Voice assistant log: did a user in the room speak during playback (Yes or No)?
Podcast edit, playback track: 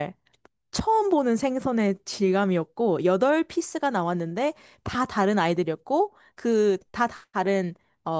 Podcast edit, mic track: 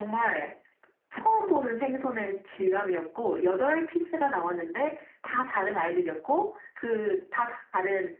No